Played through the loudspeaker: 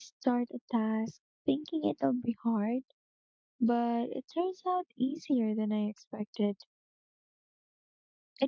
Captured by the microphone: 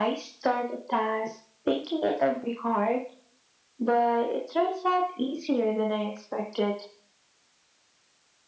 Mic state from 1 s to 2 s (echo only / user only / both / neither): echo only